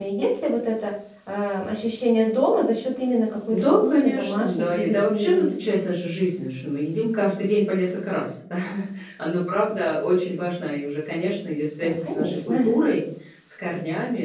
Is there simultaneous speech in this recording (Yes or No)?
Yes